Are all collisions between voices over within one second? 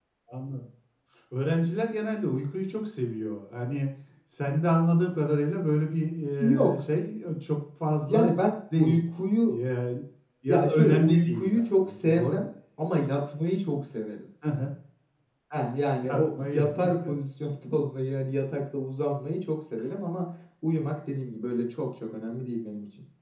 No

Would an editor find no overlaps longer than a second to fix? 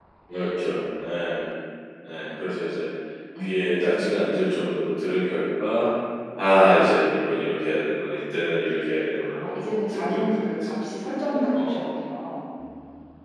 No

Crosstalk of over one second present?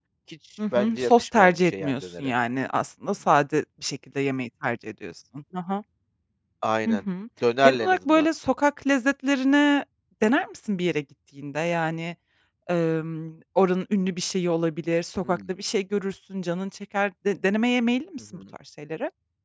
Yes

